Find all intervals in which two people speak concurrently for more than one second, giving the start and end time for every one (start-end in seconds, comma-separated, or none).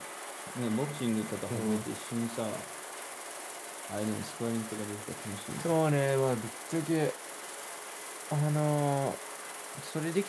none